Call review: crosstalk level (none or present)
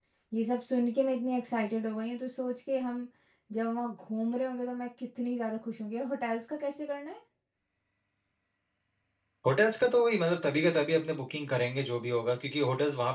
none